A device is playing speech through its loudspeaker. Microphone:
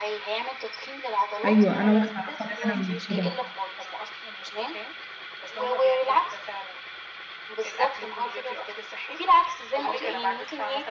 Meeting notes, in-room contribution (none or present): present